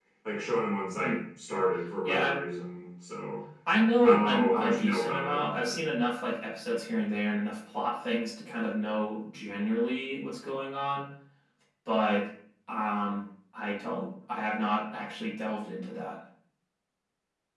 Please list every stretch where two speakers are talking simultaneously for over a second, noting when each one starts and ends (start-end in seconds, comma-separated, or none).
4.0-5.8